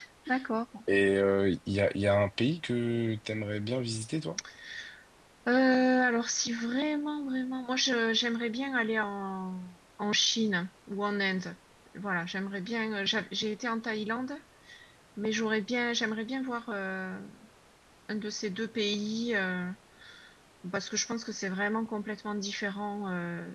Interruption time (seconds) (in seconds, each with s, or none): none